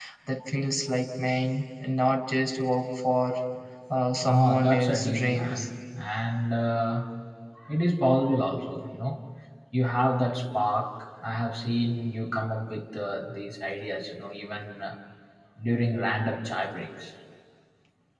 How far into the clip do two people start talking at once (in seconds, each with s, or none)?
4.2 s